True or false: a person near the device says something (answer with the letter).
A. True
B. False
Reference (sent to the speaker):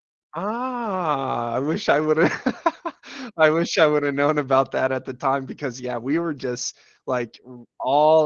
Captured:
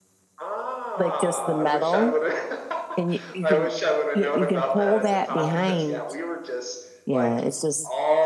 A